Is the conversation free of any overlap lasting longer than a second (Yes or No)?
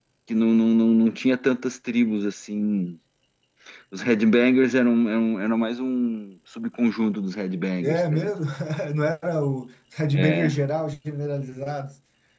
Yes